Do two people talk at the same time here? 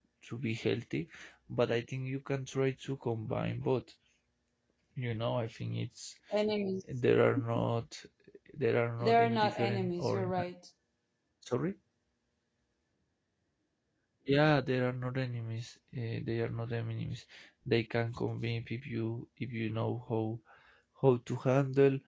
Yes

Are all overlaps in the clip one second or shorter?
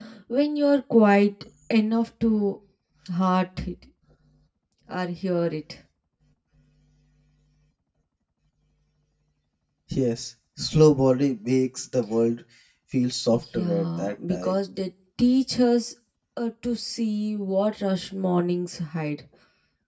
No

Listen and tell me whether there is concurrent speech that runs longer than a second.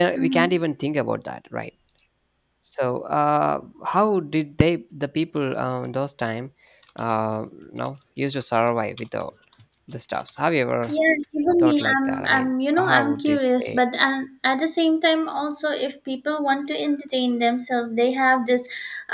Yes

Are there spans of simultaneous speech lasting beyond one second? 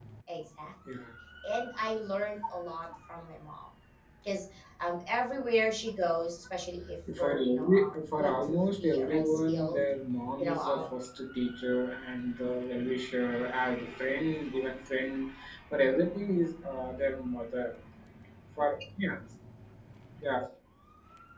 Yes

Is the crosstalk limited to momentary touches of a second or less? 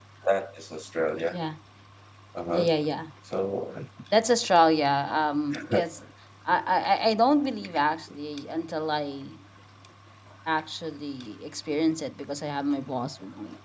Yes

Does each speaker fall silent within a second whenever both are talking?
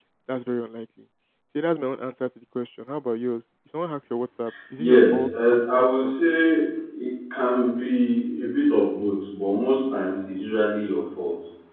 No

